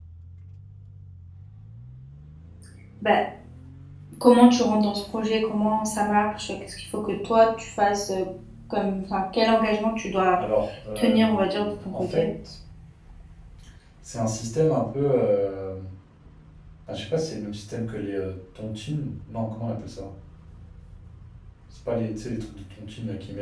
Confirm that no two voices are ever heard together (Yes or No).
No